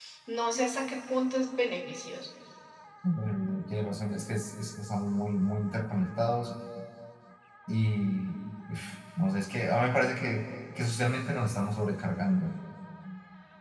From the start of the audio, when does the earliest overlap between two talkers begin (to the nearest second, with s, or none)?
none